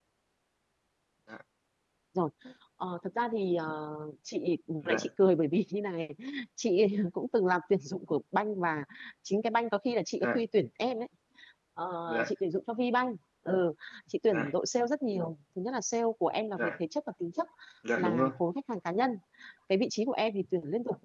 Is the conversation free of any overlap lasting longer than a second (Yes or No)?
Yes